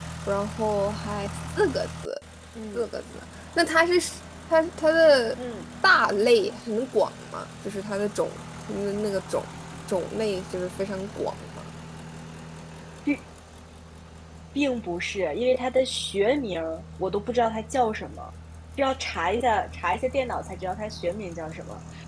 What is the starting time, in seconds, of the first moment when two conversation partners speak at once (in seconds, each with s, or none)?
none